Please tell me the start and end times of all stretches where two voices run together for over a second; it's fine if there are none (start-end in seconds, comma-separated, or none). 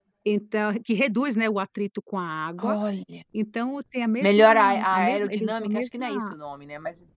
4.2-6.2